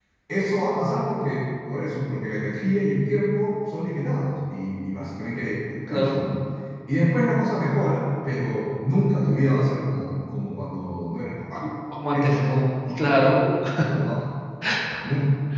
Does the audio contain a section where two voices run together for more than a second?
No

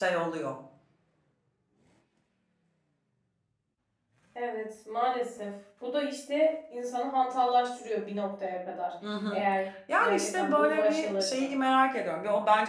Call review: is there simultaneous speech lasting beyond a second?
Yes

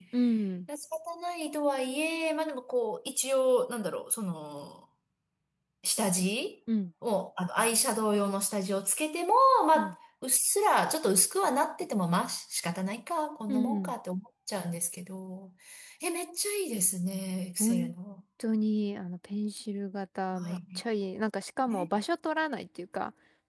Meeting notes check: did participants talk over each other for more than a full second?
No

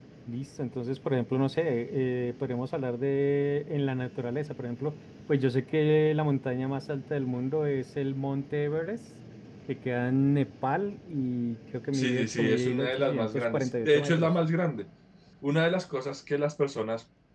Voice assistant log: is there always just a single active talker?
No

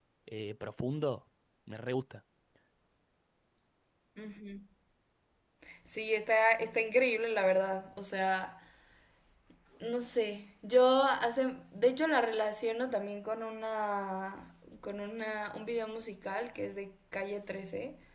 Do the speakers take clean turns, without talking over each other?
Yes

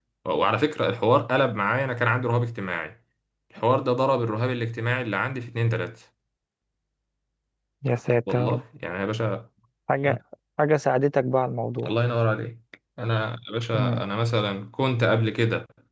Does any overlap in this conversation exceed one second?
No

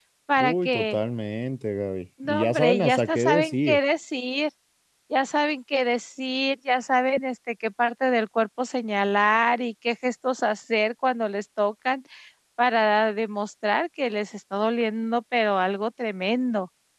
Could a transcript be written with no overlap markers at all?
No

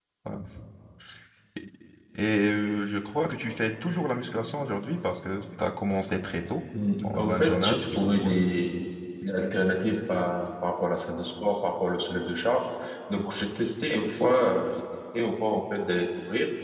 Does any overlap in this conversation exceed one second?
Yes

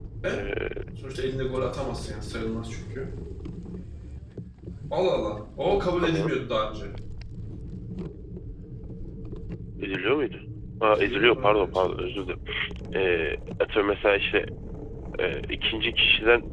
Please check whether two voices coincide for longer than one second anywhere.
Yes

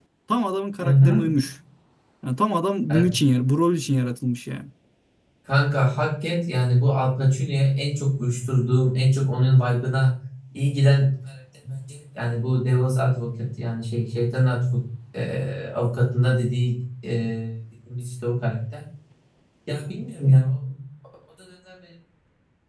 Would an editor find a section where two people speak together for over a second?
No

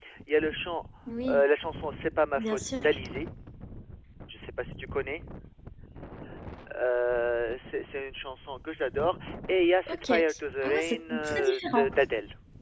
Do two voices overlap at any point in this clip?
Yes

